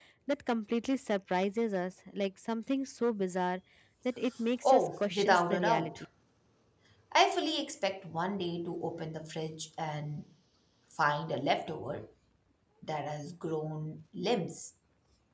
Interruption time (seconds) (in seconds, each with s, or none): 4.6 s